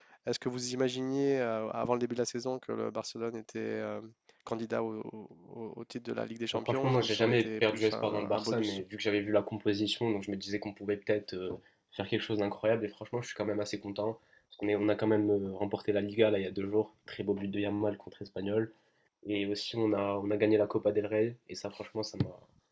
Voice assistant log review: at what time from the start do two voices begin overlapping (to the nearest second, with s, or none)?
7 s